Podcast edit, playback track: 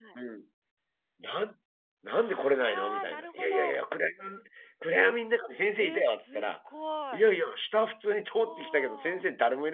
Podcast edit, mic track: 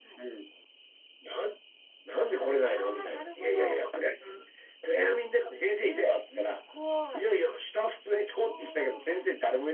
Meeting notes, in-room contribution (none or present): none